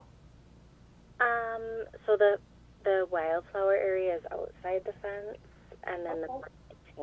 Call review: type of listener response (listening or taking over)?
listening